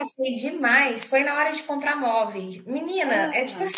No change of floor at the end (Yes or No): Yes